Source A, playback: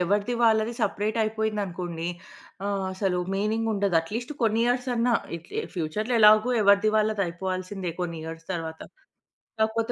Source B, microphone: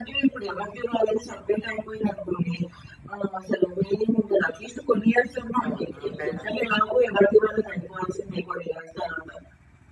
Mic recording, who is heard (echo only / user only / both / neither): both